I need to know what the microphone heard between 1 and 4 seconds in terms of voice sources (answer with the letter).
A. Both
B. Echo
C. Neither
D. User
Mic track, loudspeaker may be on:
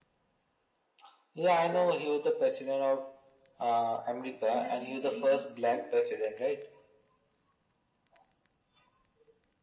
B